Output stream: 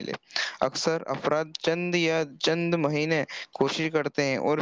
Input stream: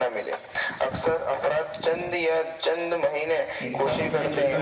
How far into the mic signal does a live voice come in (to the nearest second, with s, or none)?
4 s